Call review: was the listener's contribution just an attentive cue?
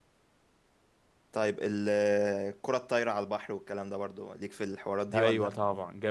No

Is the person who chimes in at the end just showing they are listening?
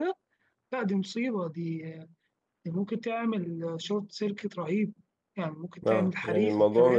No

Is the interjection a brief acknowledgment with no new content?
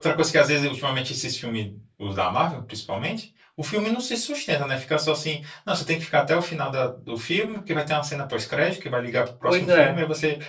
Yes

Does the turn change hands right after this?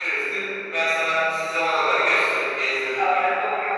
Yes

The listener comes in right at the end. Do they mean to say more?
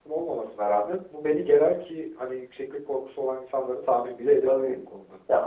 Yes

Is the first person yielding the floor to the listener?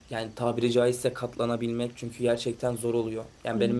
No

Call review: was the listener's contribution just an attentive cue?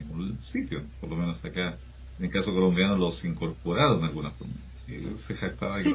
No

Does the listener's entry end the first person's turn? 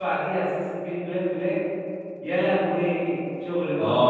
Yes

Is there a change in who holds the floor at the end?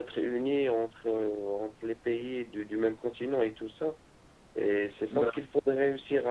No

